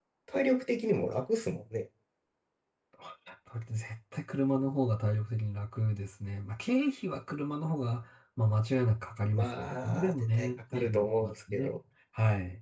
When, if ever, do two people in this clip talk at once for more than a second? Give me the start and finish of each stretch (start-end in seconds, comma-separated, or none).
9.3-11.7